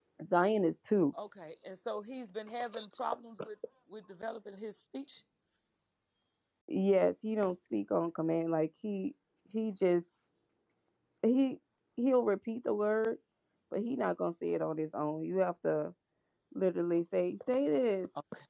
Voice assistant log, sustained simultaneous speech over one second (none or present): none